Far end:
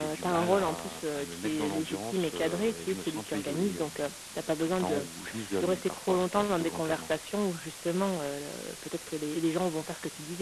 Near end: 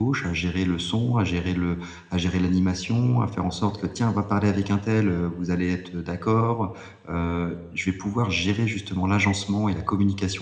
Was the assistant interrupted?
Yes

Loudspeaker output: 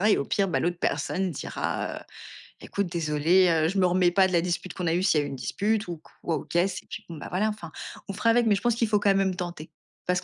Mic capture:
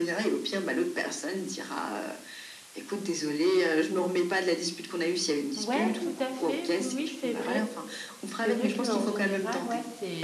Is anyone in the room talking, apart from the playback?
Yes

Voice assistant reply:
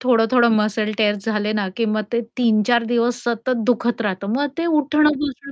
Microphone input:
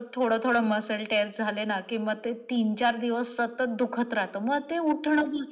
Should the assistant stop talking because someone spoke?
No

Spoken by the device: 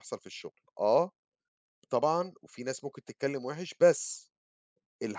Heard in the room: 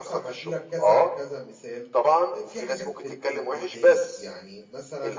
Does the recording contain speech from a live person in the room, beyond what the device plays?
Yes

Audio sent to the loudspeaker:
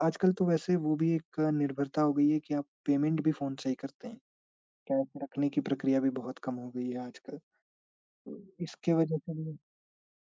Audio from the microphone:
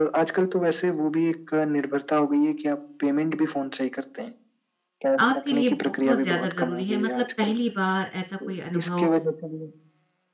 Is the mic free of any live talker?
No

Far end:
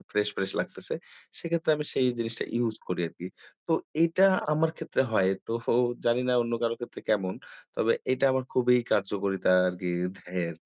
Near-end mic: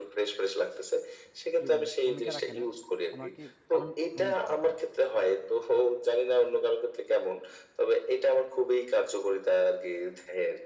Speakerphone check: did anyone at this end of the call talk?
Yes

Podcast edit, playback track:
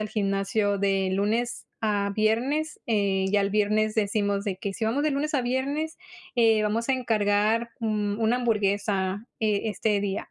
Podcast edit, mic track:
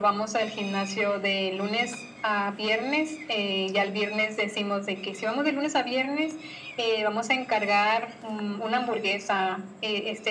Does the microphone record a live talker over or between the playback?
No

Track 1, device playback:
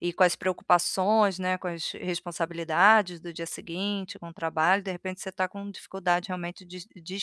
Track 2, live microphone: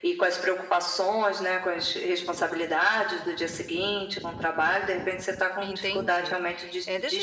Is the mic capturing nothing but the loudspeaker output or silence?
No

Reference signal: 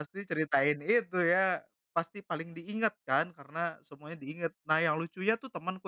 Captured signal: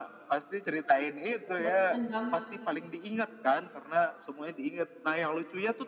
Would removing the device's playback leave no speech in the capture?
No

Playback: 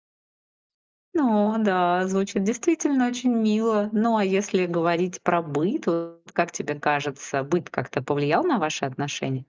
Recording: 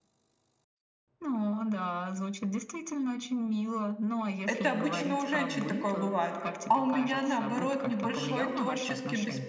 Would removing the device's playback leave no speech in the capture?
No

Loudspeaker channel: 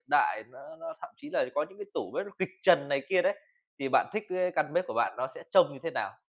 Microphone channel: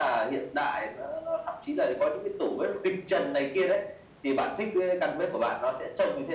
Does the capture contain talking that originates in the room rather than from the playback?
No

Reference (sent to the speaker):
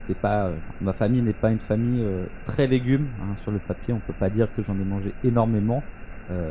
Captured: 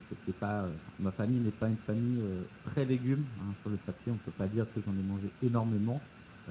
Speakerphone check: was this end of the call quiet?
Yes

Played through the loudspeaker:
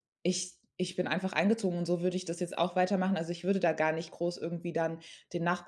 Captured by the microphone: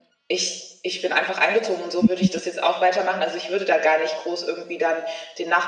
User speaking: Yes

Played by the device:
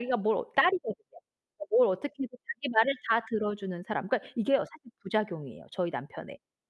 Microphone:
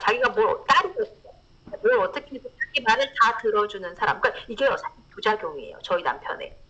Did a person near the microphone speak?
No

